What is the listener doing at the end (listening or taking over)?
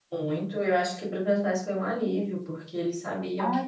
listening